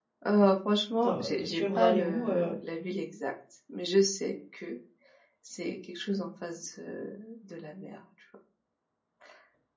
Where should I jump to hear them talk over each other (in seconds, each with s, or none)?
1.0 s